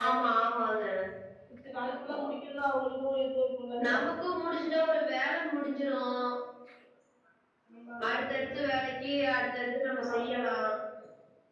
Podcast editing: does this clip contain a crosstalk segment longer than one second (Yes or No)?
No